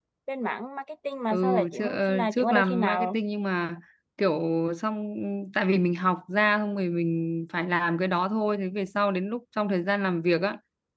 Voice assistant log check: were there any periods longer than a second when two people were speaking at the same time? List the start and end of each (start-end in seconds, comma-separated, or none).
1.3-3.2